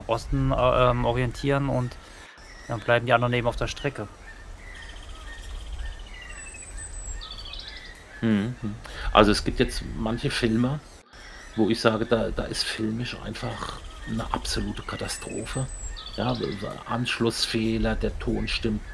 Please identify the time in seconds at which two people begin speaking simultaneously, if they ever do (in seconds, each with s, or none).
none